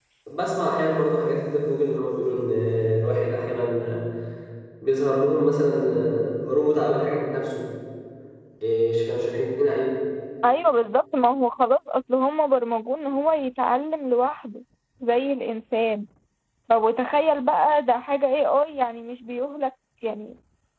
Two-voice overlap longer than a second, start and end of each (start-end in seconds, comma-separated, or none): none